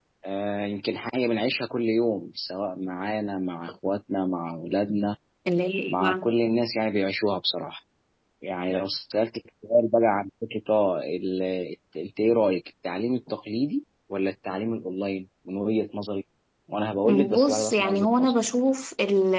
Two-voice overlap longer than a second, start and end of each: 17.1-18.4

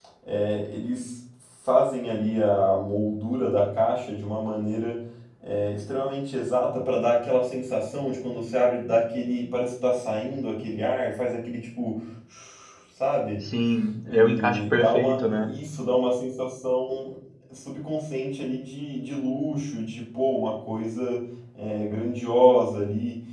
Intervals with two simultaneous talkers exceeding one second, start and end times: 14.1-15.5

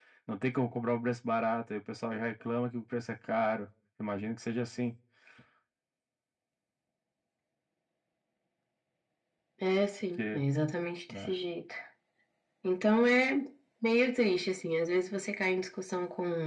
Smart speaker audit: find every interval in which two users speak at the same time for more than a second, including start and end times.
none

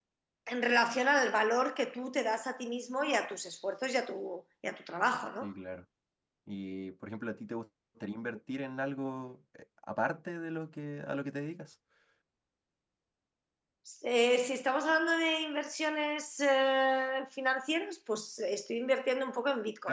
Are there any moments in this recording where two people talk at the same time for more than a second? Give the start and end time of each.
none

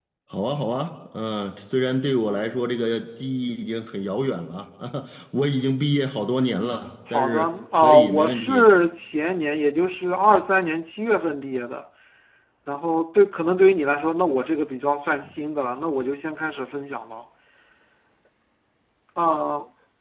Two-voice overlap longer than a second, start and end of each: 7.1-8.7

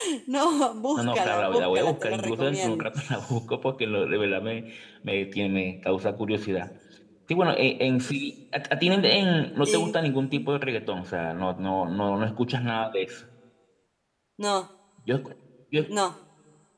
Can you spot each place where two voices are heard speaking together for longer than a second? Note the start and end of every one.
0.9-2.9

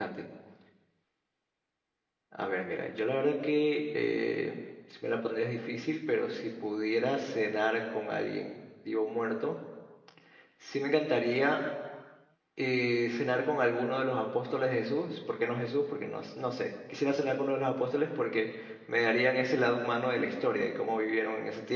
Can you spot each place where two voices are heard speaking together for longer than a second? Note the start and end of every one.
none

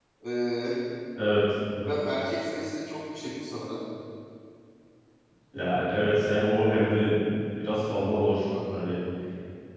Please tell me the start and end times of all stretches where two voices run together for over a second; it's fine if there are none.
none

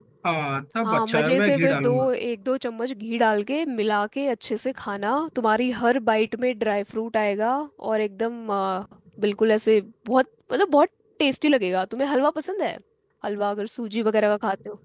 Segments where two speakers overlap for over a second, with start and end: 0.8-2.1

